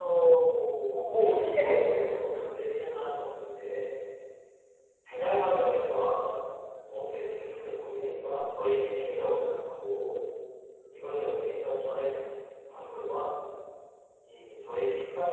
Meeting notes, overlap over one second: present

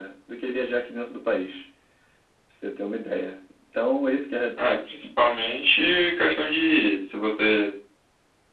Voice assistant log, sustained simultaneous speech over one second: none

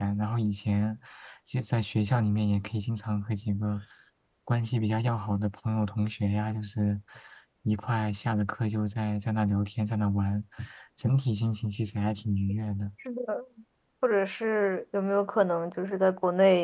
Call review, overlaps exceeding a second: none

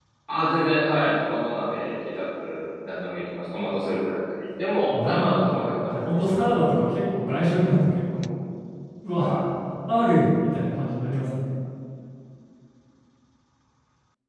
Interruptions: present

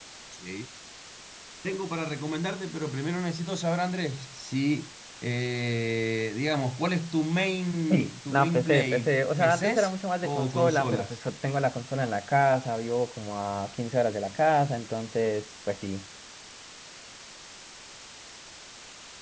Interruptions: present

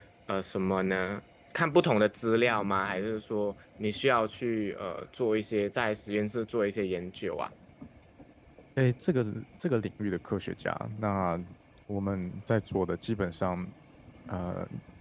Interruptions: none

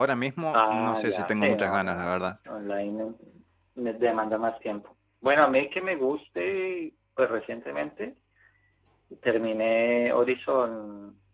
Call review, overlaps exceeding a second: present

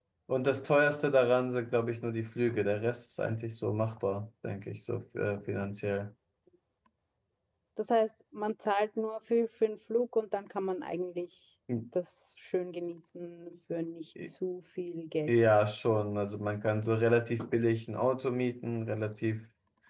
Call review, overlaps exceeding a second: none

